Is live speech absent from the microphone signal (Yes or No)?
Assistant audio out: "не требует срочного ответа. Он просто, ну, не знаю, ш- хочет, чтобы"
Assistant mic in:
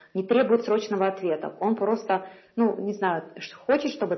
Yes